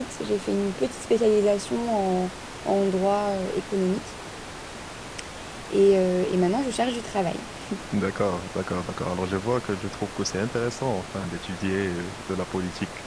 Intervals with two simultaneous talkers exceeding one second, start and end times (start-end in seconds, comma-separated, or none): none